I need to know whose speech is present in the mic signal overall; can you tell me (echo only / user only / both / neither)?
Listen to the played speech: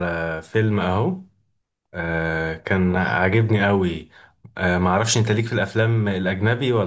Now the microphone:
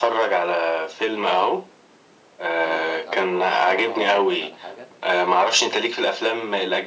both